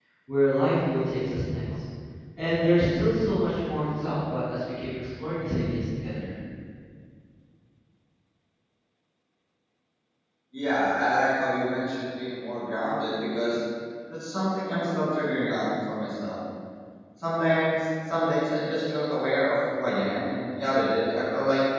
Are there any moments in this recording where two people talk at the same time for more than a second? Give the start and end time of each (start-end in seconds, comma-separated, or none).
none